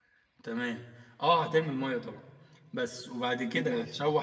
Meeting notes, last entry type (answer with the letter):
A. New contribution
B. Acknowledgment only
B